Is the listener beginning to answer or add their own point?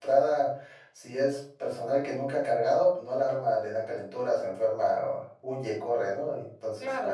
Yes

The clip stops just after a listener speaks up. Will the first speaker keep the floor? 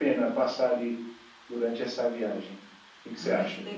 No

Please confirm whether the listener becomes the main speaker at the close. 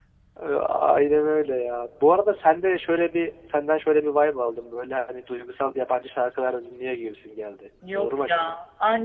Yes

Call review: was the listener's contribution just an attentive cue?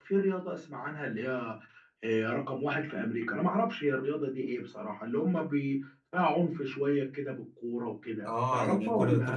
No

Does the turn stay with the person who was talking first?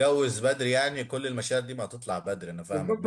No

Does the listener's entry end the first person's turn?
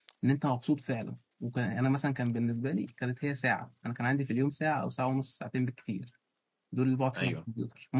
No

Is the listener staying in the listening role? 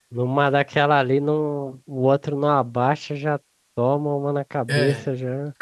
No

